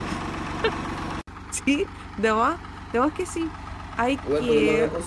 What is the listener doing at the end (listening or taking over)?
taking over